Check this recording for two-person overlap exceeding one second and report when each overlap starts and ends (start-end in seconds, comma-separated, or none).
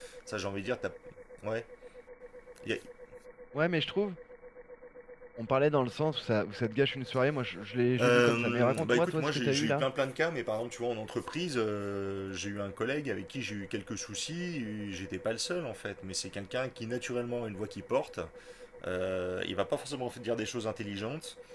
8.0-9.9